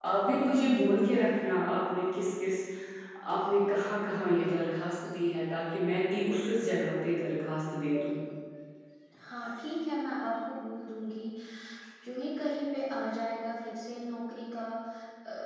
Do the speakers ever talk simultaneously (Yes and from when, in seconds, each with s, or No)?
No